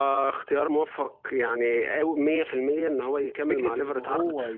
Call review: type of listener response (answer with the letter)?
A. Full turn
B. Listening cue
A